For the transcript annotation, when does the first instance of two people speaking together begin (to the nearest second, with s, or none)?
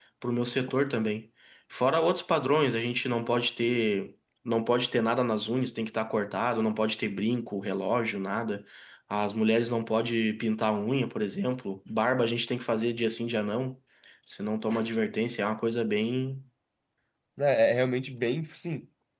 none